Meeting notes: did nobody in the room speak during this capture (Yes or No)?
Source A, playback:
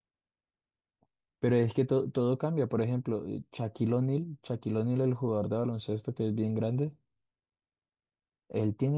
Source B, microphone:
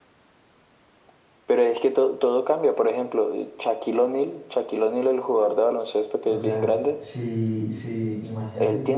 No